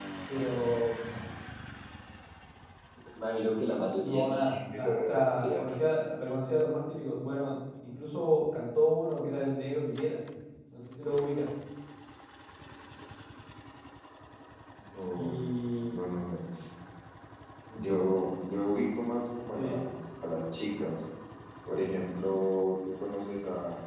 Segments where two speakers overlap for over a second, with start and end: 4.0-5.8

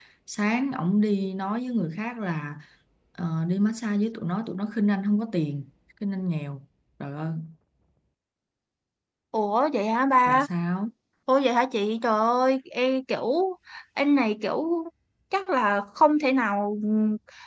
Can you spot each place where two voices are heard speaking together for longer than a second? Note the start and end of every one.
none

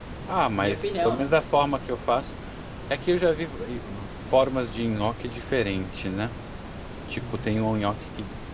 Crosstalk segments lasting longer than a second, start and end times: 0.5-1.8

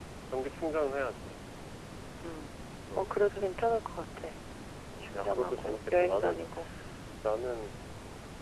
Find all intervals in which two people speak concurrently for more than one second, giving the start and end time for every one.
5.0-6.4

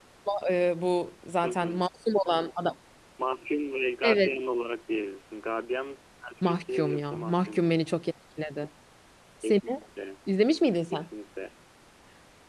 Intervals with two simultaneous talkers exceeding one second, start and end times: 6.4-7.7

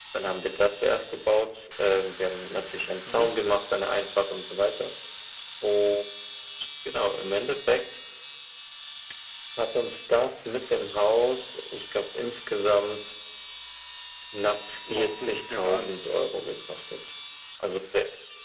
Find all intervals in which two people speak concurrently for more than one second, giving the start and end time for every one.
14.9-16.2

